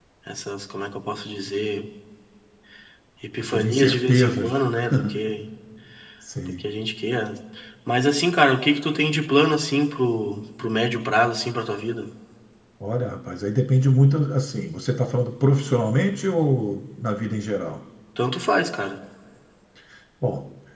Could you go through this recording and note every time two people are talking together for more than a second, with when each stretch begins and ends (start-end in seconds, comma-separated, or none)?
3.4-4.6